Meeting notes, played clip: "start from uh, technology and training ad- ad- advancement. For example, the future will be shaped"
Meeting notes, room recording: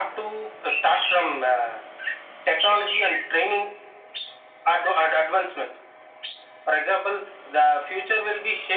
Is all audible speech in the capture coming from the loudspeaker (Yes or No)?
Yes